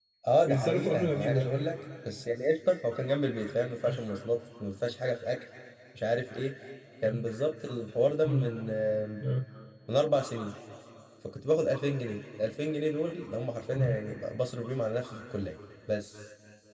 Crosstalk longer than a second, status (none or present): present